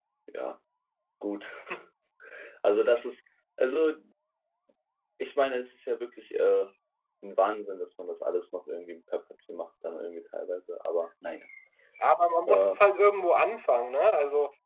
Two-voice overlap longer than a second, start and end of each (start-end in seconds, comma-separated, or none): none